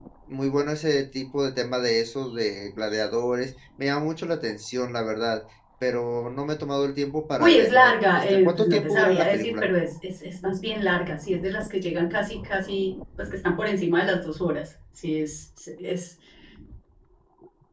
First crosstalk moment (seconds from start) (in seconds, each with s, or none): 7.4 s